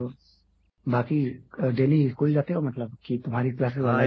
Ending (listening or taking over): taking over